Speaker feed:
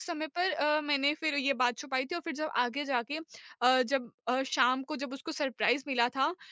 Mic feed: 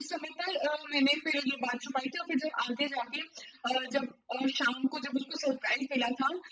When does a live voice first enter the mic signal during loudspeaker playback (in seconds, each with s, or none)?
none